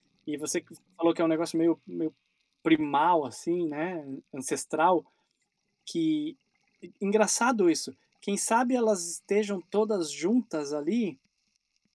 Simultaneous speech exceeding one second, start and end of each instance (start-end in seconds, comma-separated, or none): none